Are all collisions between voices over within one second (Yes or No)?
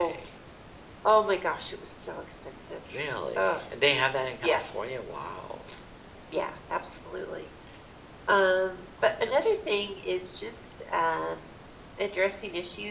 Yes